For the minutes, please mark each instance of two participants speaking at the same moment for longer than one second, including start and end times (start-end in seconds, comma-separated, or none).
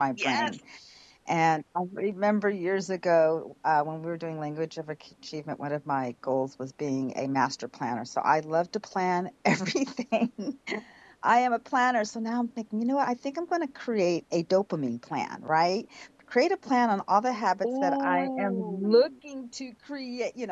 17.7-19.1